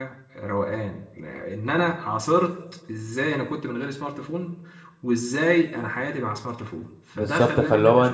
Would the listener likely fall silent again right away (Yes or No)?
No